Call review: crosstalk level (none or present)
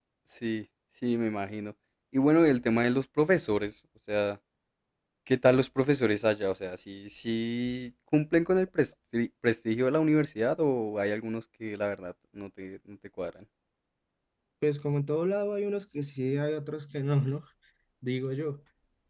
none